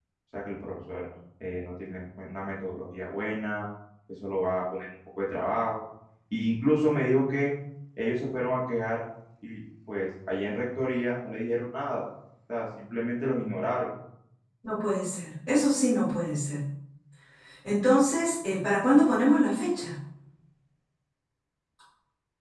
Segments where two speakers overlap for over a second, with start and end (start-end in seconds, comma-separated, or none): none